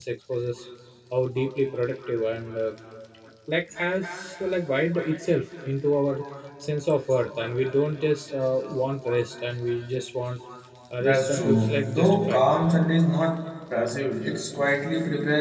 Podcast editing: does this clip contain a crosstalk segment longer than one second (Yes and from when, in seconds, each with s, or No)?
Yes, from 11.0 s